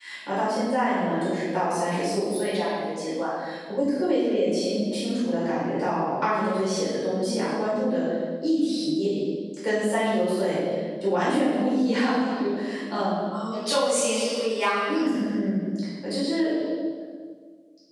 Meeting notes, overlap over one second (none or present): none